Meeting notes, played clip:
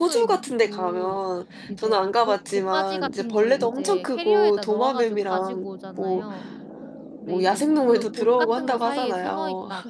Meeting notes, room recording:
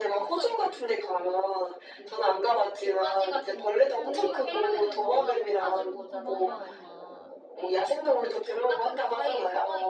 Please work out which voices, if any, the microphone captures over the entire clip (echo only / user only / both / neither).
both